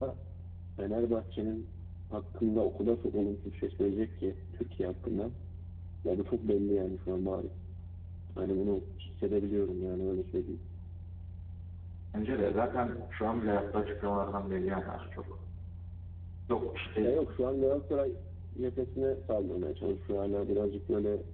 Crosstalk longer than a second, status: none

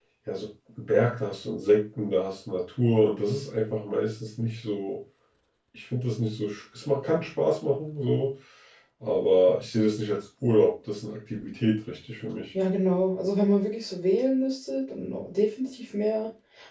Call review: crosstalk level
none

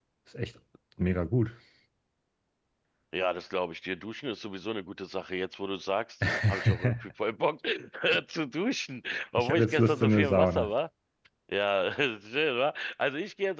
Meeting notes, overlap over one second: present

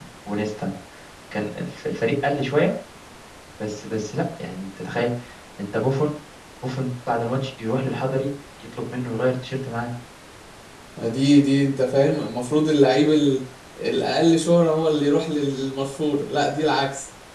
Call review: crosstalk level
none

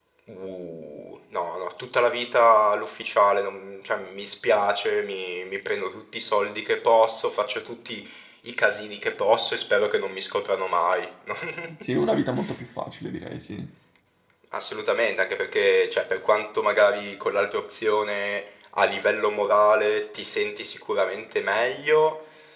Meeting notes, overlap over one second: none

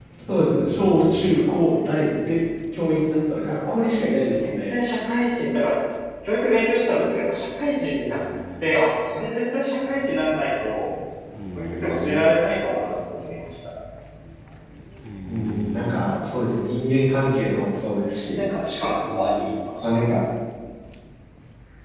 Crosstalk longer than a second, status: none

